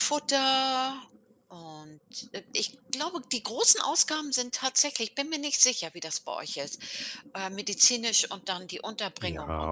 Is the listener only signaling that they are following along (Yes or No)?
No